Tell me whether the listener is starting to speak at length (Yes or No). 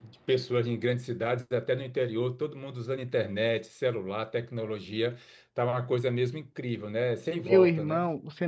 Yes